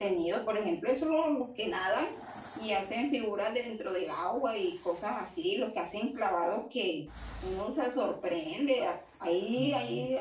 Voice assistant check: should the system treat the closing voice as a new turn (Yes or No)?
No